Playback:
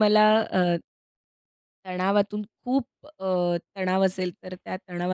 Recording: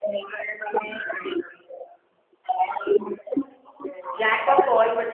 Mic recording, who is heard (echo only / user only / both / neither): both